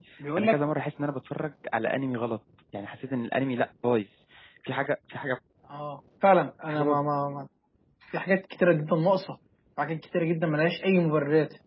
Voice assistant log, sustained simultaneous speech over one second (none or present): none